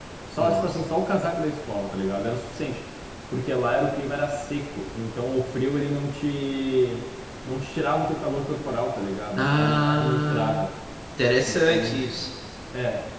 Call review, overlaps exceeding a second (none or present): present